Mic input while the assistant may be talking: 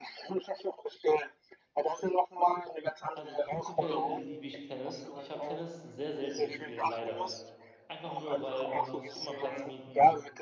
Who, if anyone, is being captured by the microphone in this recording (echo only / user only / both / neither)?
both